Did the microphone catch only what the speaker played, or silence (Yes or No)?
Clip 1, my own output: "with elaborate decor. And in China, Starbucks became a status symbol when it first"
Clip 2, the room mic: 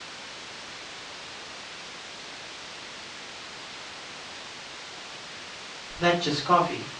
No